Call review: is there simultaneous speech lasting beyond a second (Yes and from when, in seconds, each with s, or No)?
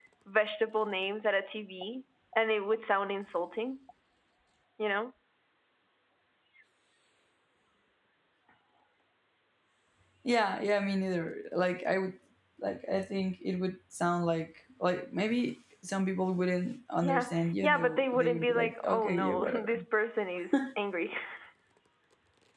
Yes, from 17.0 s